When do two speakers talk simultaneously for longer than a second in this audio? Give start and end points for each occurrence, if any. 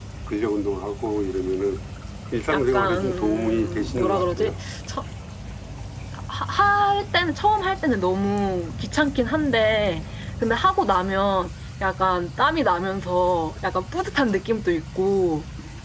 2.5-4.5

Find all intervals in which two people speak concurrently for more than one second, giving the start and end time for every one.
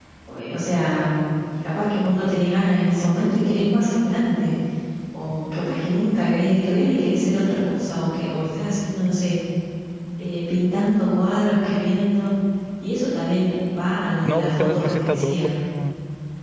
14.2-15.5

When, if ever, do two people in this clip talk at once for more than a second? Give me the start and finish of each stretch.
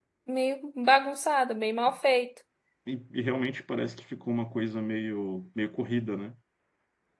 none

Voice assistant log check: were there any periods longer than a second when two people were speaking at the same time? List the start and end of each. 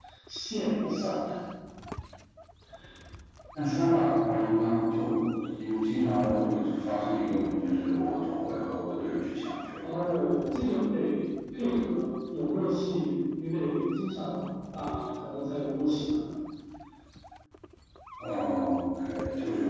none

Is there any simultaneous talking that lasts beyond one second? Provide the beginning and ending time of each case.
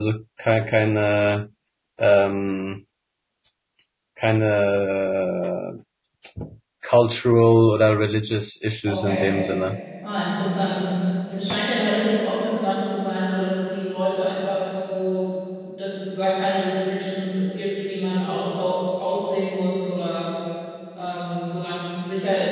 none

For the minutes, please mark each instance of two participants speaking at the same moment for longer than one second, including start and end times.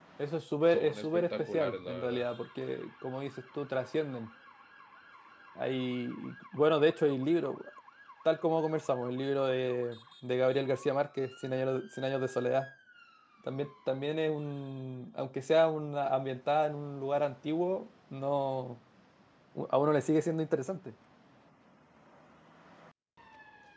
0.7-2.2

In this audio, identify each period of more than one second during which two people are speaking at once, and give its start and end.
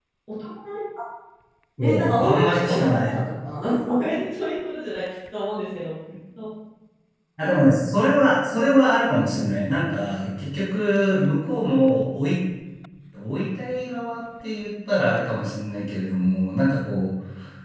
1.8-3.1

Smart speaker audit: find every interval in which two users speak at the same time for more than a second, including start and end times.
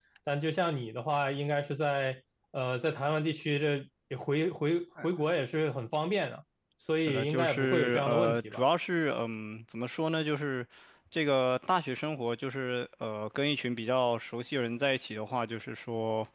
7.0-8.6

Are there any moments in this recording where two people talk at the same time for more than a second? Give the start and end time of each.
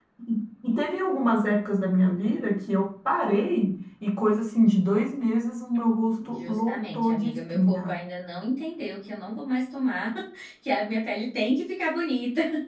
6.3-7.9

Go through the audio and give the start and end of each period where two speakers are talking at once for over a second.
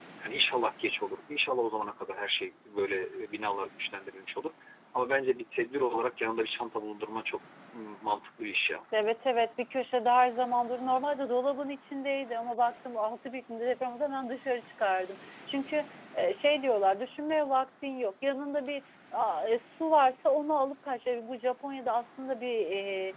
none

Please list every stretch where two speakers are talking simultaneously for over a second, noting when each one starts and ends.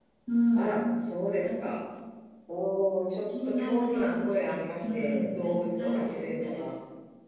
3.6-6.7

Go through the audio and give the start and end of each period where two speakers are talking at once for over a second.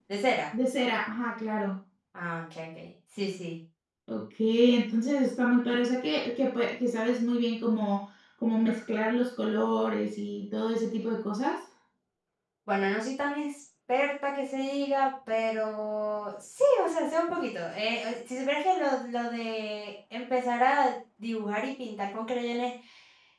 none

